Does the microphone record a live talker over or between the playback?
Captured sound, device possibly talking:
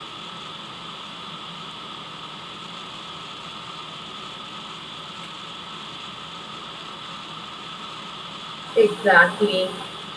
Yes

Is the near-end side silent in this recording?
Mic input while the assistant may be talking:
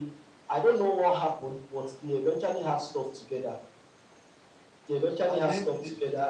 No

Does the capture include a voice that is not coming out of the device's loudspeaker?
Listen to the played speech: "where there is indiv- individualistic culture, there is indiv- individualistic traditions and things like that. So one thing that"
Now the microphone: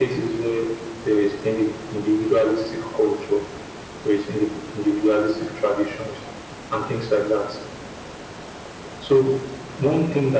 No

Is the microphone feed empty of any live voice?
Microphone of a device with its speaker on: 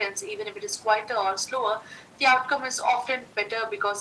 Yes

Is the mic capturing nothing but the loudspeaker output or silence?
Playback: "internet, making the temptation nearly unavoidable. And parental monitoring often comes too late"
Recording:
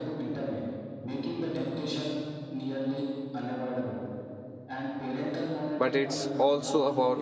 No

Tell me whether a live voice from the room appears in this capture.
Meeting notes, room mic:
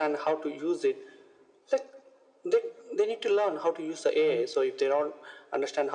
Yes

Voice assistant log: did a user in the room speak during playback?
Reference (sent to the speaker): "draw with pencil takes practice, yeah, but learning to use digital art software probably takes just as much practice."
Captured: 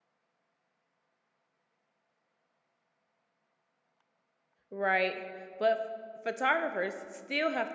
Yes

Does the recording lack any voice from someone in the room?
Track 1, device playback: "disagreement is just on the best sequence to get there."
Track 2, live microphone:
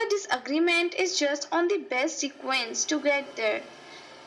Yes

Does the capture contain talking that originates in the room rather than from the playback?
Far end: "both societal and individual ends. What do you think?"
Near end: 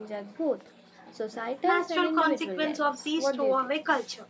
Yes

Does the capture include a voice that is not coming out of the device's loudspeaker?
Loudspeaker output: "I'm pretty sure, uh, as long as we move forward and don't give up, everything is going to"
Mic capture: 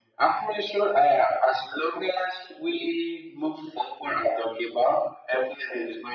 No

